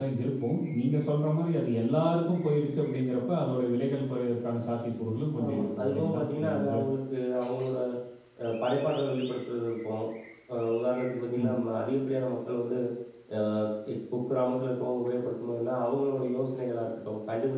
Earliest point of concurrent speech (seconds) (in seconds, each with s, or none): 5.4 s